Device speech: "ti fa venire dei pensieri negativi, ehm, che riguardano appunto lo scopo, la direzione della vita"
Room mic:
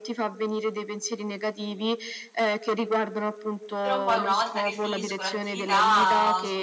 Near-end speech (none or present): present